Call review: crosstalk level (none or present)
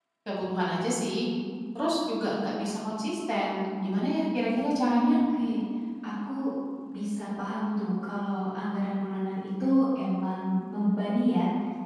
none